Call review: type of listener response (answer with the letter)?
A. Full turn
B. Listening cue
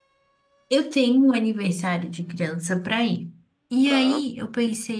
B